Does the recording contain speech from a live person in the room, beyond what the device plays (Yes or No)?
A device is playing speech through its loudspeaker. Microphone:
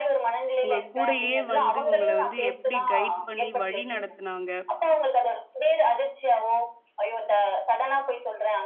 Yes